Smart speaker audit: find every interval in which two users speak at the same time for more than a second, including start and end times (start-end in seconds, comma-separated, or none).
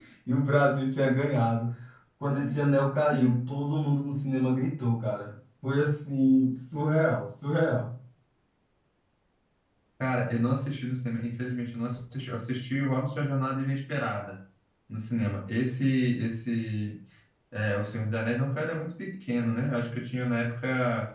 none